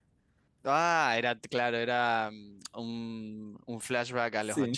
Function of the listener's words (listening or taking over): taking over